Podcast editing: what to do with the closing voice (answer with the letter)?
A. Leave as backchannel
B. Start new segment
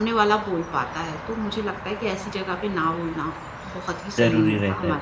B